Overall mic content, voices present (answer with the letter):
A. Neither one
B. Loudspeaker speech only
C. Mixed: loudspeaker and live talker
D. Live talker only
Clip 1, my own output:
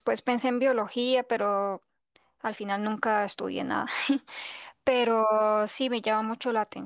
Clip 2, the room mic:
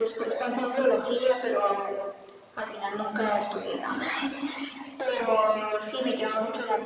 B